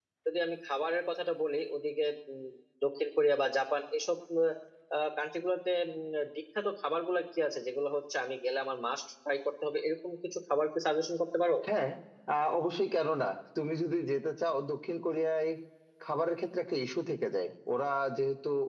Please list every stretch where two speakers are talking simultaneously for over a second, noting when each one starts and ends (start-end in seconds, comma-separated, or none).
none